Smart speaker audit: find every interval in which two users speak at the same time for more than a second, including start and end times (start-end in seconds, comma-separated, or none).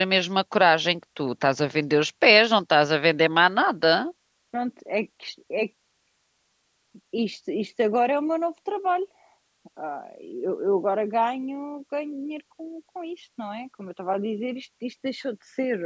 none